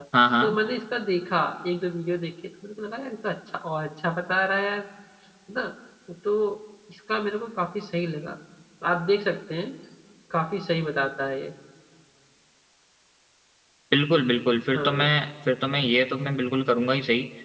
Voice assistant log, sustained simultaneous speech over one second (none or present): none